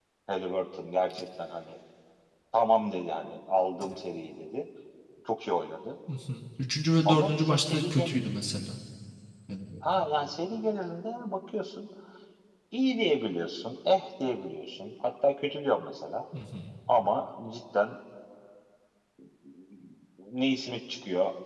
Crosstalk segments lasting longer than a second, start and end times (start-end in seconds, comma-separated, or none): 7.0-8.2